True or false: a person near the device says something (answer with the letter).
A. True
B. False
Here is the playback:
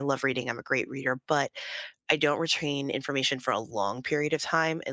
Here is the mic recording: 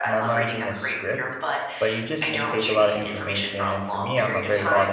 A